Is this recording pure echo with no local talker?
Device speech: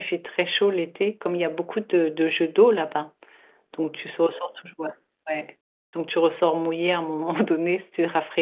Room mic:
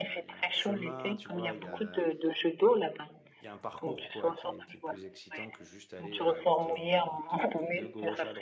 No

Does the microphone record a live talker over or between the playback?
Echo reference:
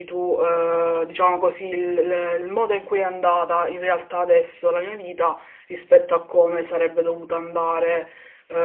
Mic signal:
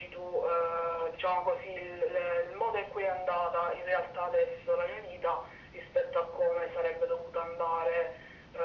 No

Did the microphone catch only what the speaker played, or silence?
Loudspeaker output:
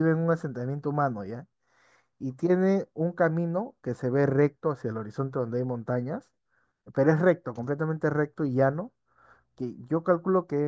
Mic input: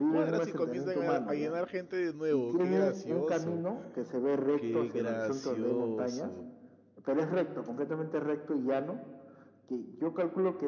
No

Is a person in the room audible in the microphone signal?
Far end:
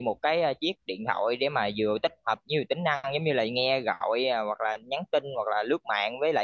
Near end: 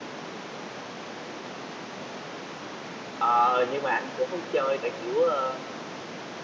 Yes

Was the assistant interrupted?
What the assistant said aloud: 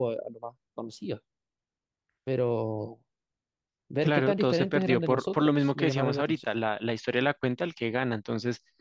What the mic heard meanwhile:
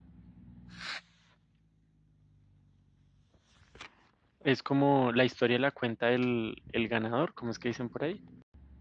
Yes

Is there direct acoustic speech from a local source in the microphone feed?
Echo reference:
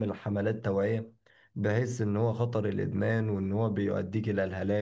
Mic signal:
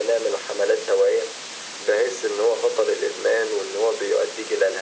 No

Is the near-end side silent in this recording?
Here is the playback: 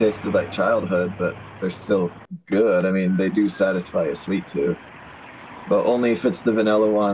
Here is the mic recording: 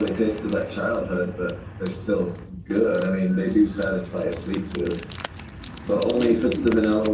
Yes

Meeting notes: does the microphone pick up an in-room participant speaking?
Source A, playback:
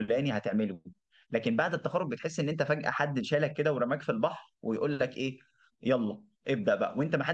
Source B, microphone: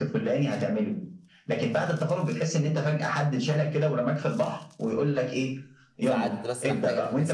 Yes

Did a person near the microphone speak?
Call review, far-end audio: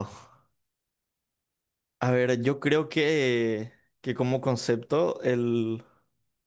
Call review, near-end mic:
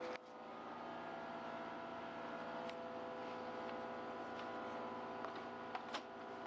No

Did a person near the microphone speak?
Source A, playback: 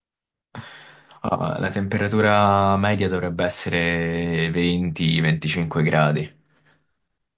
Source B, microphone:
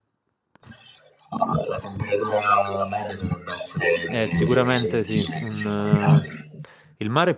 Yes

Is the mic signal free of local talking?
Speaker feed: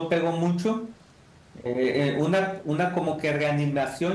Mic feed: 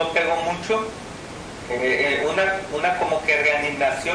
Yes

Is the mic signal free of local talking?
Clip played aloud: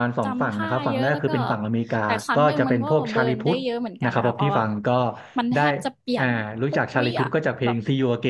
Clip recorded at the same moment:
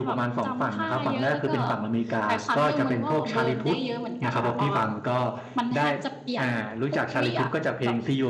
Yes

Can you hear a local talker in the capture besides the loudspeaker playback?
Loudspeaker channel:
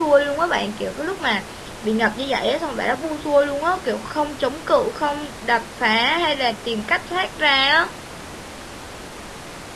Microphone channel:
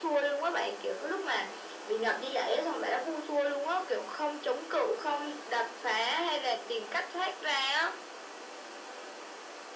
No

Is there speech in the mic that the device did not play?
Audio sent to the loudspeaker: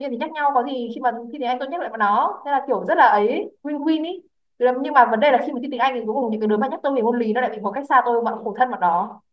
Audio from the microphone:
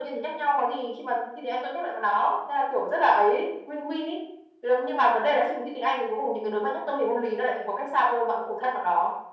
No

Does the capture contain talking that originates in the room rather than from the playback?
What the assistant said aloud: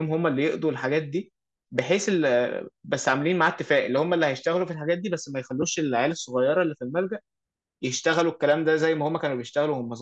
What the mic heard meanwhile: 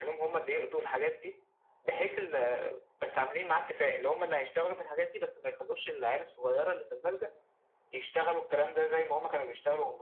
No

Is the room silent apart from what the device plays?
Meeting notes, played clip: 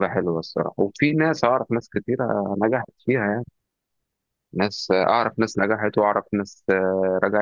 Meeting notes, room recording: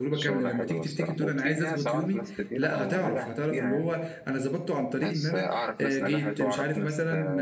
No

